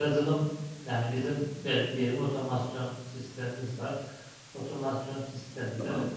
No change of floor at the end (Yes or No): Yes